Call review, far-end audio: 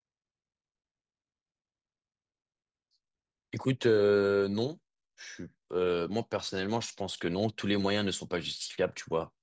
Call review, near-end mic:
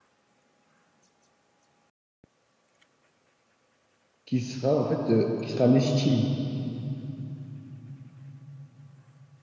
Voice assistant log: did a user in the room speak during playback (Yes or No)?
Yes